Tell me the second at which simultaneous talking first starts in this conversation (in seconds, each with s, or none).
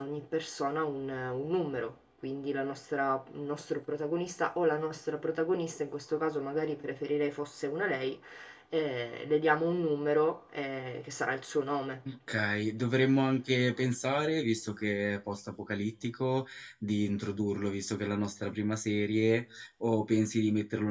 none